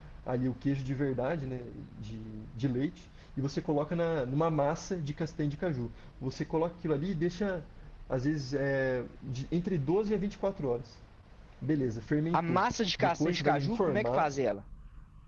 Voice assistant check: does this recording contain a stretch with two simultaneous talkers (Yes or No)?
Yes